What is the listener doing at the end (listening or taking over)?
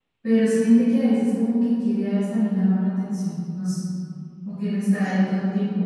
listening